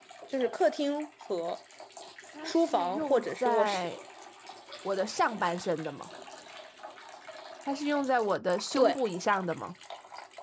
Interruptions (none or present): present